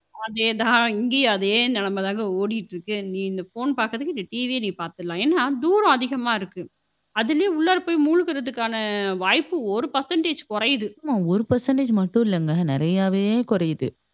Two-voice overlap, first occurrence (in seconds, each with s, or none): none